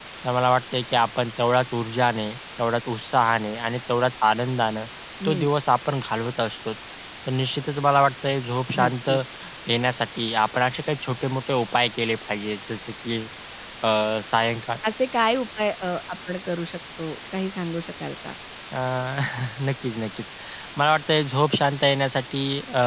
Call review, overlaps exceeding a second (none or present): none